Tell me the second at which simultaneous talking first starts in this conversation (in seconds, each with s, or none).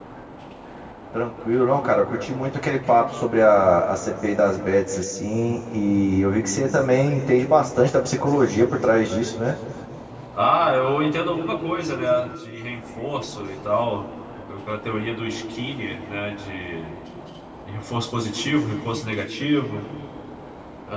none